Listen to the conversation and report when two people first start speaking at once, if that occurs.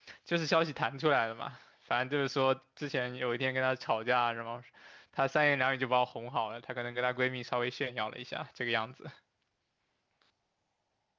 none

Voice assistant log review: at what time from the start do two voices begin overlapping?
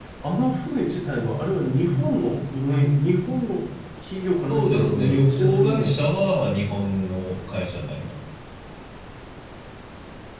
4.5 s

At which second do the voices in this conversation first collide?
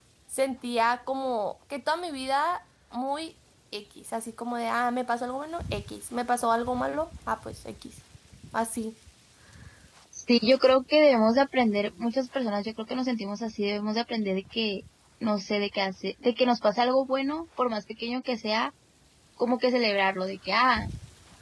none

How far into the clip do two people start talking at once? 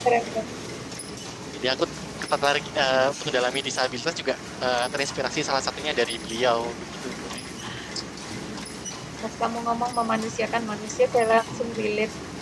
none

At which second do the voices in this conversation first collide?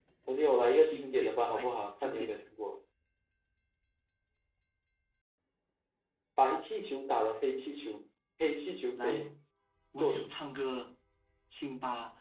0.8 s

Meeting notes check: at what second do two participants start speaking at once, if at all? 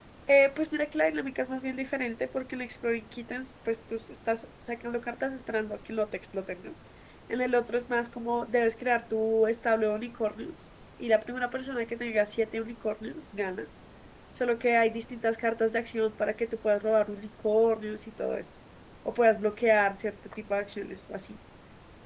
none

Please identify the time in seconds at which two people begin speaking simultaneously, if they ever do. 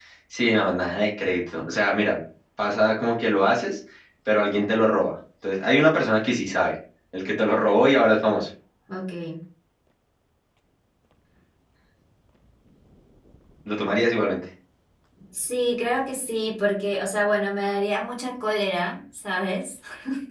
none

